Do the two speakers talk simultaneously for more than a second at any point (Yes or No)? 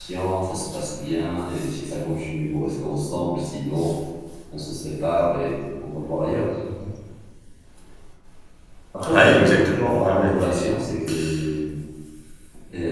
Yes